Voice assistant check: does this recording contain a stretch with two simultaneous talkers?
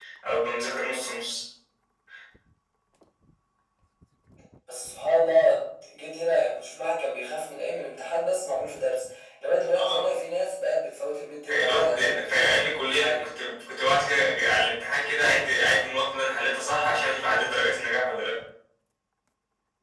Yes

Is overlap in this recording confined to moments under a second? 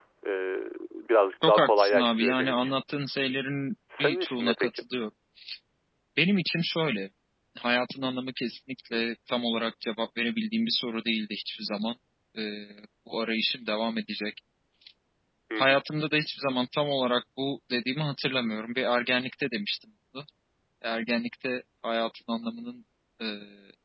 No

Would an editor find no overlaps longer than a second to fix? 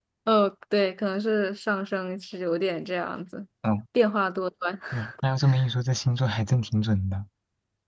Yes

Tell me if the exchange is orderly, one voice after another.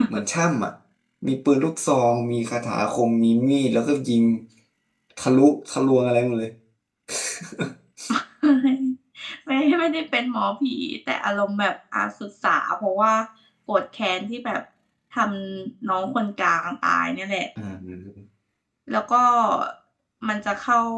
Yes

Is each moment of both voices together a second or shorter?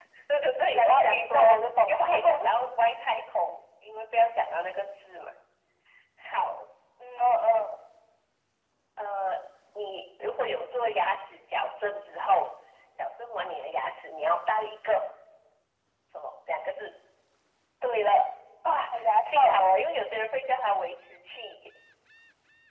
No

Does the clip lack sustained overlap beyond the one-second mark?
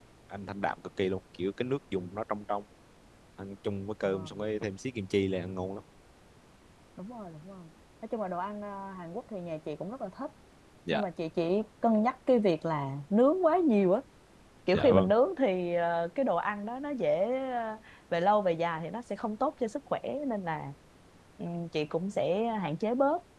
Yes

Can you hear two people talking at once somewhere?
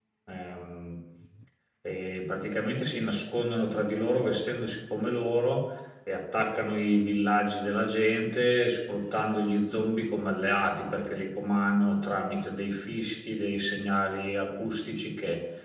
No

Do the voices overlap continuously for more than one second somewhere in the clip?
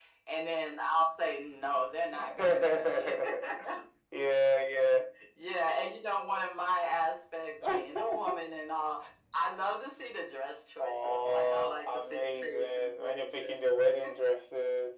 Yes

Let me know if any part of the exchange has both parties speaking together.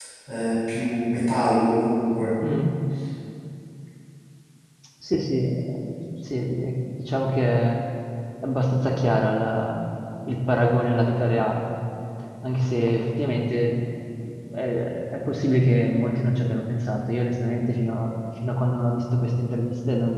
No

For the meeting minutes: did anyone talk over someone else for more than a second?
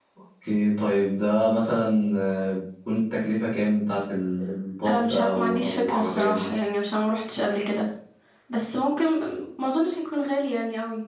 Yes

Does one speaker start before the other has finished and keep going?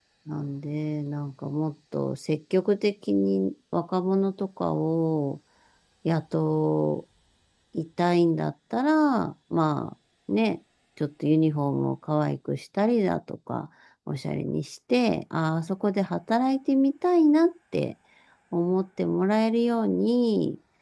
No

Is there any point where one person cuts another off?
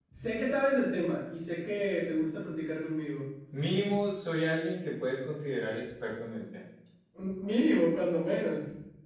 No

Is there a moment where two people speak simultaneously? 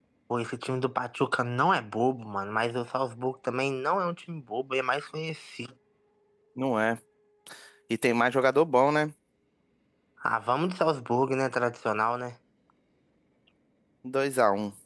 No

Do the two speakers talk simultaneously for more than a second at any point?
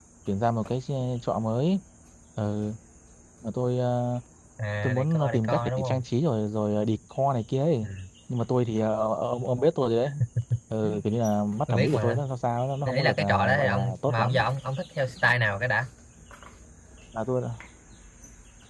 Yes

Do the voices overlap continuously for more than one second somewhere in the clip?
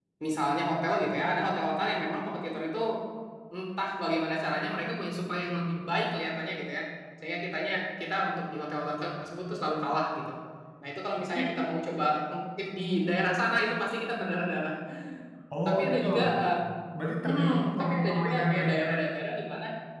Yes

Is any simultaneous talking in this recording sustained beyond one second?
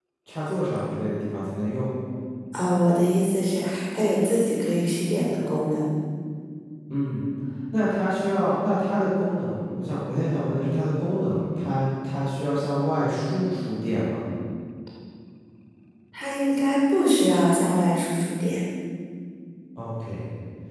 No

